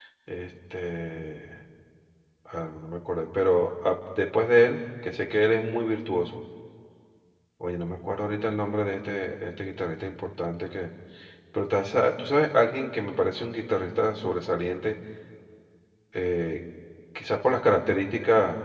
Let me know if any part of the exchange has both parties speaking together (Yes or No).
No